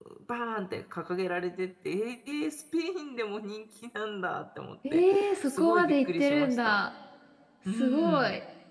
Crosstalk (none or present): present